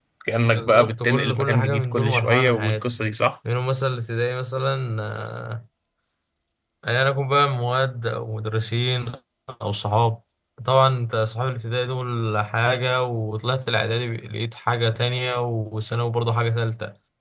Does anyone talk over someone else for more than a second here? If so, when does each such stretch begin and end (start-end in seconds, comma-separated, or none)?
0.5-2.9